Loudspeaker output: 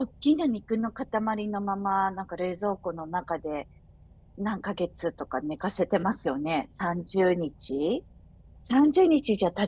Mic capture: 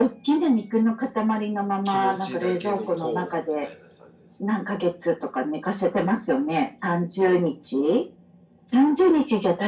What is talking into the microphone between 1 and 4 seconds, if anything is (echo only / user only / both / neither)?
both